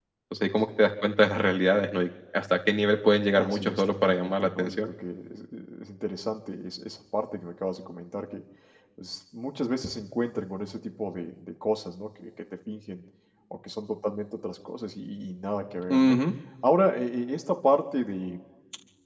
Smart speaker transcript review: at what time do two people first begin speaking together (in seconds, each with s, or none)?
3.4 s